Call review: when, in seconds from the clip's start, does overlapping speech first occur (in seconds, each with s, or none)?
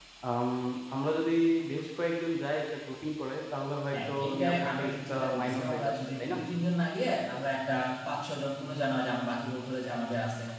3.9 s